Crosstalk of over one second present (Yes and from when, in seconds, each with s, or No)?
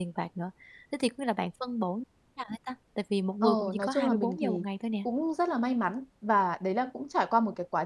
Yes, from 3.4 s